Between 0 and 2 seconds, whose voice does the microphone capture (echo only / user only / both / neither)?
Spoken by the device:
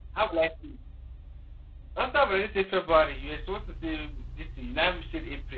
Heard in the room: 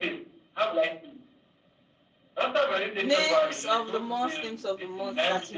echo only